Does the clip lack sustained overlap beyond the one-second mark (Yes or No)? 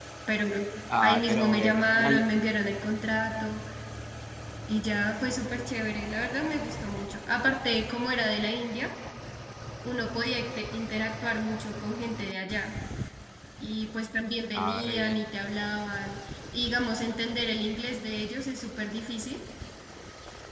No